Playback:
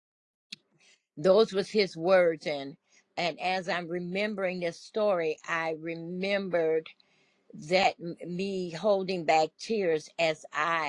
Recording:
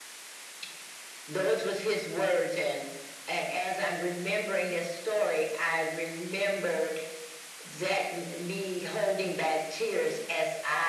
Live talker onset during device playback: none

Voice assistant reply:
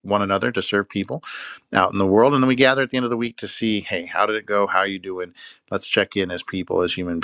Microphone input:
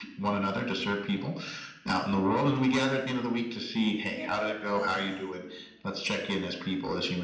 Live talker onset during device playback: 4.1 s

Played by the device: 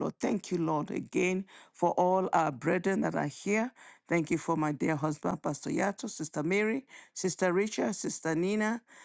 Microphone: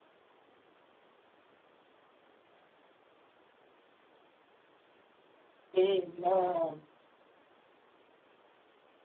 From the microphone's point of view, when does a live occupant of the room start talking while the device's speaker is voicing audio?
5.8 s

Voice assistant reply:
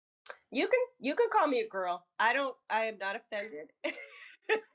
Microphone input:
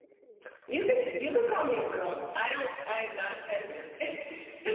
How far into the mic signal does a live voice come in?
none

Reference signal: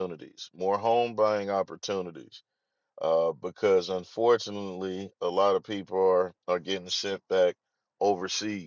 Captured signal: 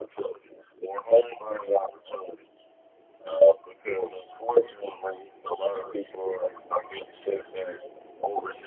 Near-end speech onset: none

